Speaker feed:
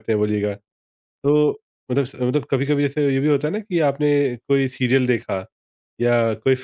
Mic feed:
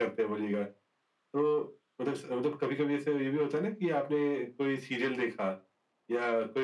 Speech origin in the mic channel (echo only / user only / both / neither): echo only